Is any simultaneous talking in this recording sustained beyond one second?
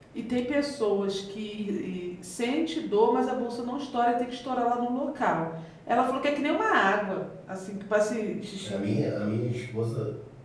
No

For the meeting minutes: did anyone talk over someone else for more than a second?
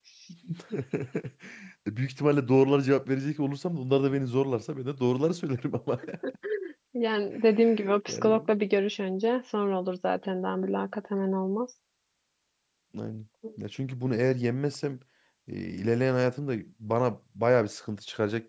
No

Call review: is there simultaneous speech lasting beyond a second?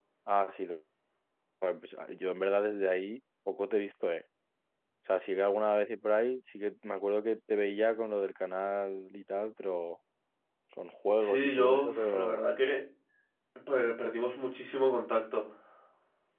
Yes, from 11.2 s

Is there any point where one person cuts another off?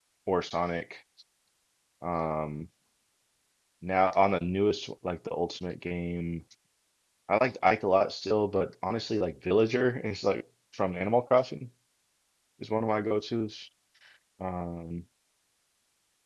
No

